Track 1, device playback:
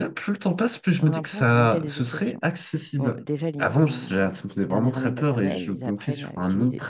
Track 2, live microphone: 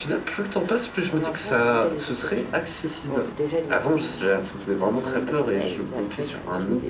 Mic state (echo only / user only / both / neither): echo only